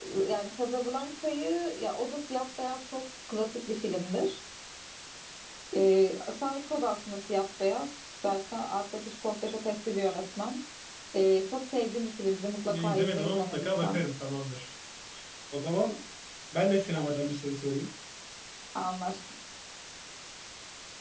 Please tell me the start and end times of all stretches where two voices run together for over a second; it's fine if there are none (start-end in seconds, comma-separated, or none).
12.7-14.0